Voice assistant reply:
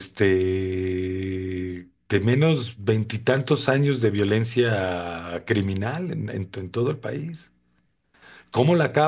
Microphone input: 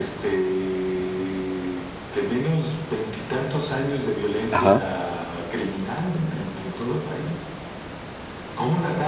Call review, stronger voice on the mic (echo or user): user